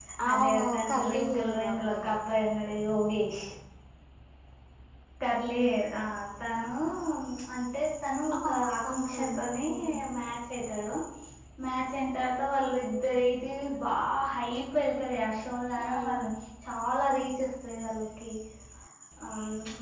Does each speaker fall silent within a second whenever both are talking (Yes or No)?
No